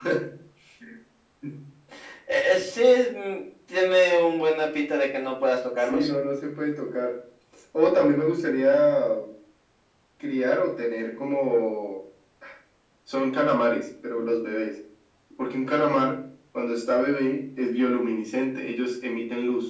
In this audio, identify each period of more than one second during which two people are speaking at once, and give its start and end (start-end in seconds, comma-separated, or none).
none